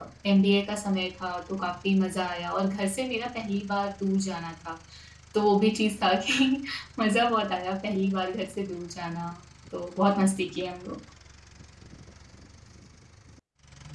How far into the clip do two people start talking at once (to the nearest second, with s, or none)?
none